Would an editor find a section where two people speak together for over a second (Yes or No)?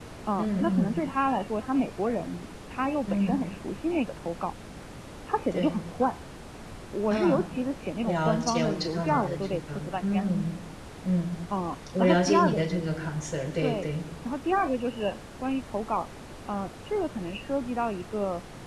Yes